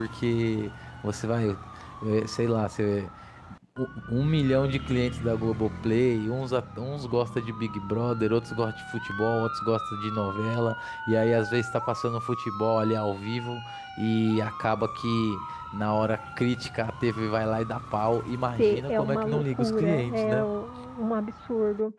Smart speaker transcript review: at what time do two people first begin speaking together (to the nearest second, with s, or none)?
19 s